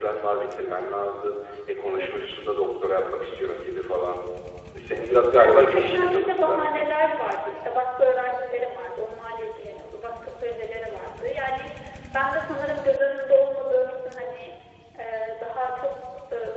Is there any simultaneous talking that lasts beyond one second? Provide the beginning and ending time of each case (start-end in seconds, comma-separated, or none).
5.3-6.6